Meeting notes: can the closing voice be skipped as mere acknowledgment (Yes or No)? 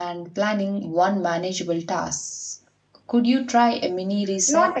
No